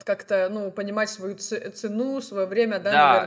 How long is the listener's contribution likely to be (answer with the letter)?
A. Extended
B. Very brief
A